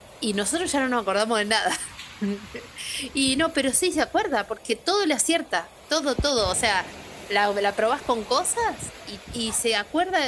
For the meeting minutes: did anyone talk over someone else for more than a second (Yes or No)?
No